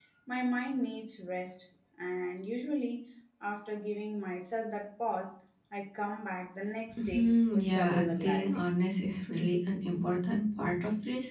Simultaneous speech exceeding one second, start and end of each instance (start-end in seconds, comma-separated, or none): 7.0-8.6